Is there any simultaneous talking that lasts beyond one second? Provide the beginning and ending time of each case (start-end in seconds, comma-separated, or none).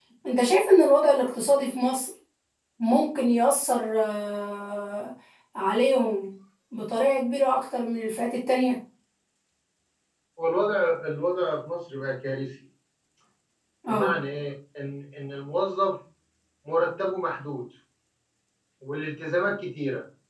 none